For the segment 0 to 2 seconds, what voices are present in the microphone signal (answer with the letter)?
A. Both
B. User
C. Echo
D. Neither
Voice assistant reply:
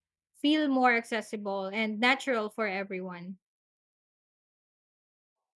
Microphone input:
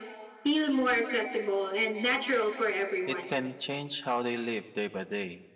C